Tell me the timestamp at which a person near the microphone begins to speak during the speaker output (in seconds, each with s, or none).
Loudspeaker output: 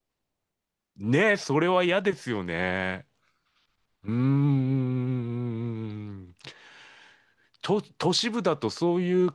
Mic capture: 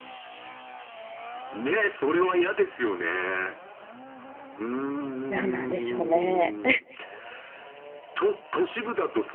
5.3 s